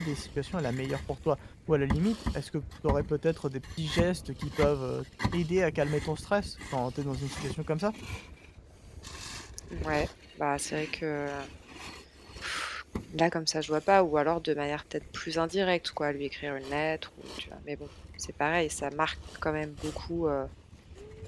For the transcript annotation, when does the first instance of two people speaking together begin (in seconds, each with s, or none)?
none